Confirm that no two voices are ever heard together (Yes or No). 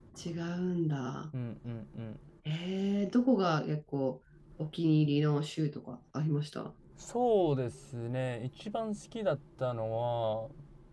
Yes